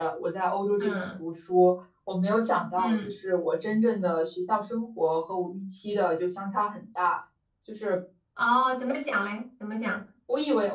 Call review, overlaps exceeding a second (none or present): none